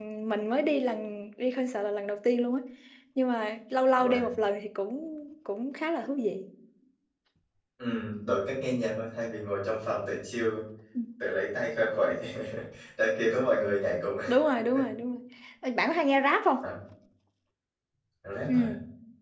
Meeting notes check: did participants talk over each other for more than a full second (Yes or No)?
No